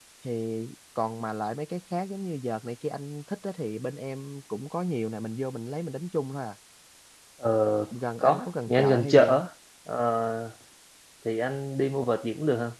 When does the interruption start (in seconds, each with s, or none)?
8.2 s